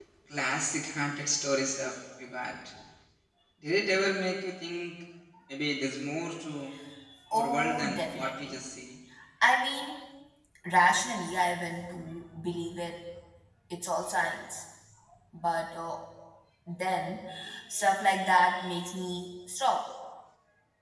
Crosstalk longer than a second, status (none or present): present